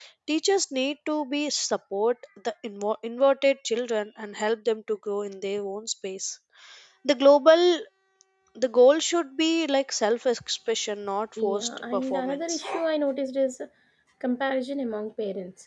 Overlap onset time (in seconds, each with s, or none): 11.4 s